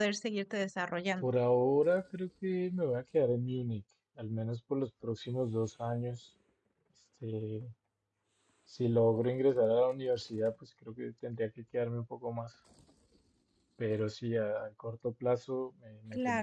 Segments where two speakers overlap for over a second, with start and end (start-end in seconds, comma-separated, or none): none